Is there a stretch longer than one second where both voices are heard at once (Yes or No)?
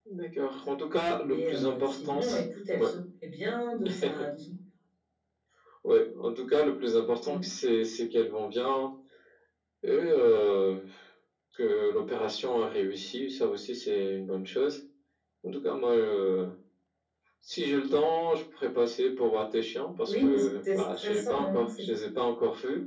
Yes